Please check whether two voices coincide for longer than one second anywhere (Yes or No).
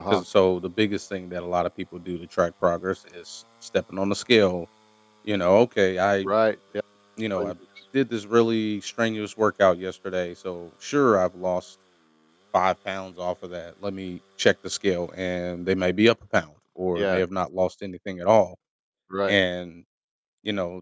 No